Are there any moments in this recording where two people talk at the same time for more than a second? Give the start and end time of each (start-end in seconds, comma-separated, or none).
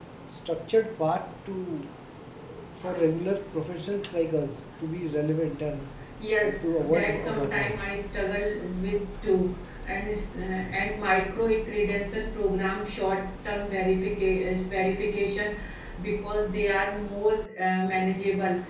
6.4-7.8